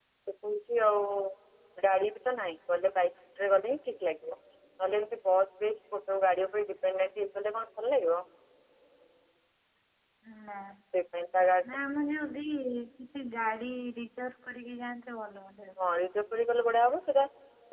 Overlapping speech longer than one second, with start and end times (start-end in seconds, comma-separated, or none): none